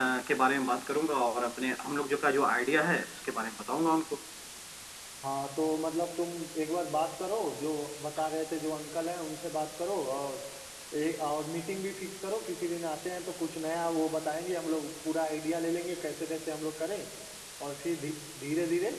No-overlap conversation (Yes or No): Yes